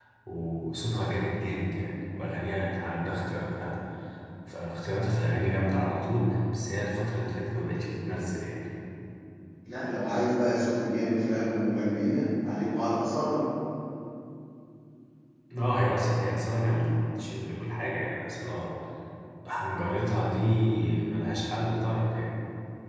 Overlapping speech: No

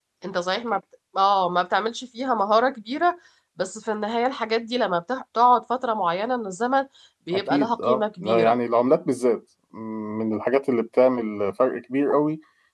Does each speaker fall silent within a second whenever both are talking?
No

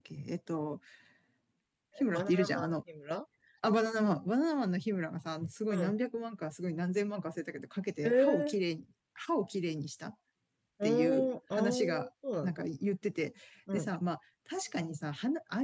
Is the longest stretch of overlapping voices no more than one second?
No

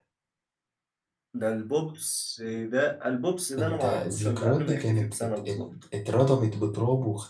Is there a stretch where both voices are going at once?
Yes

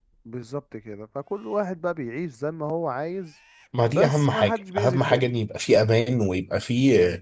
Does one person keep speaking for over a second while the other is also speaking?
Yes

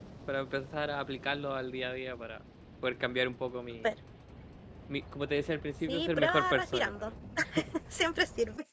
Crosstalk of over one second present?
Yes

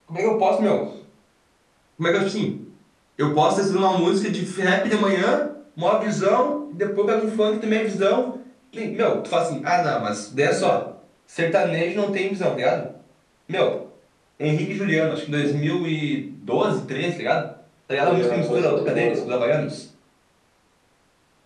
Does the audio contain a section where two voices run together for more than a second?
Yes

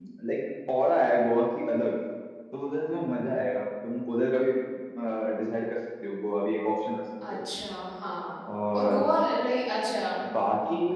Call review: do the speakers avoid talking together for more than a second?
Yes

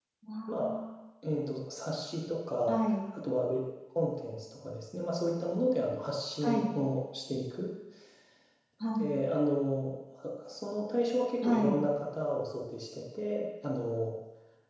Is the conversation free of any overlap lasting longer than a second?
Yes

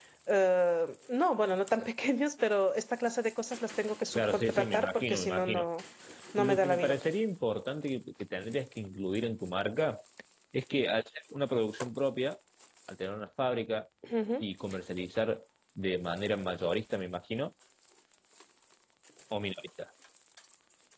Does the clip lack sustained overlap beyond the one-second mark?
No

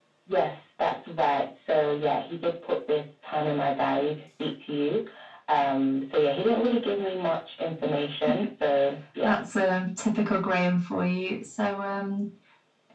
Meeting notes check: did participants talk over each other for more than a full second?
No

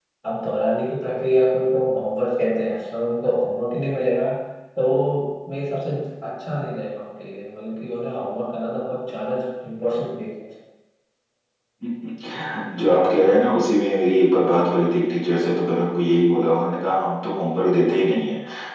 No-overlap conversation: Yes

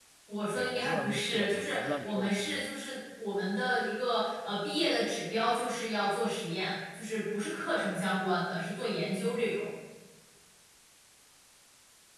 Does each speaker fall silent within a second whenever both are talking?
No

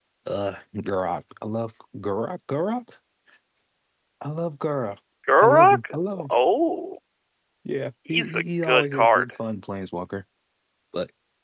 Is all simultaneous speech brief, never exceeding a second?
No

